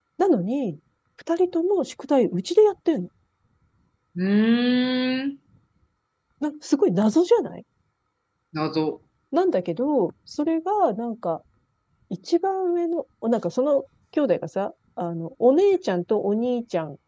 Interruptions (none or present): none